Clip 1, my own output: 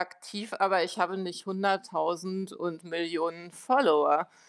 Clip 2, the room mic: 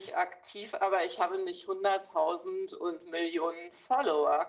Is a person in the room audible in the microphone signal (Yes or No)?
No